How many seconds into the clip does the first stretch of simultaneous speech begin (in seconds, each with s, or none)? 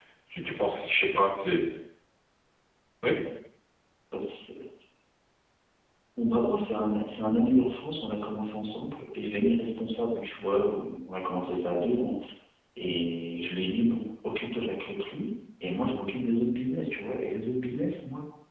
none